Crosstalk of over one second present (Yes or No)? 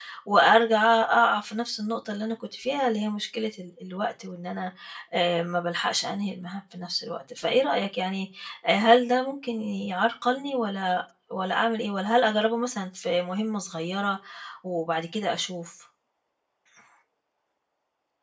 No